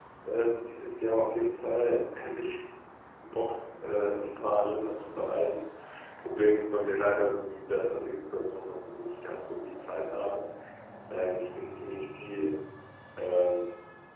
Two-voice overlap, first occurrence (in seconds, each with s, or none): none